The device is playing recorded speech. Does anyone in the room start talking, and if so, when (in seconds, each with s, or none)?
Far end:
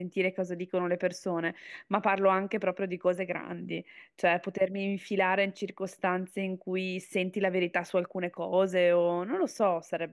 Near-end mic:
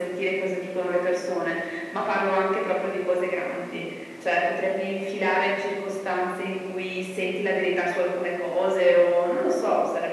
none